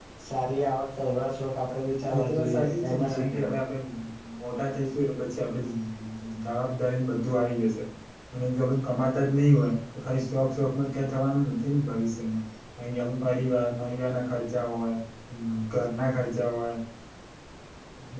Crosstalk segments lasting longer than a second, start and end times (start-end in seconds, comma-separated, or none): 2.1-3.5